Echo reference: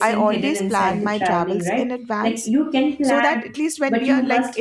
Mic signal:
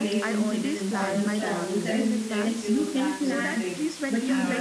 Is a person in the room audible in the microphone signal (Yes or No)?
Yes